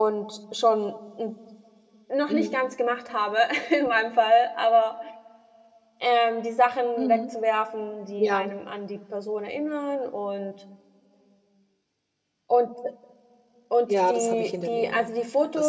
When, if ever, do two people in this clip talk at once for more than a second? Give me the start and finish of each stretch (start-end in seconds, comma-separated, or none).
13.9-15.1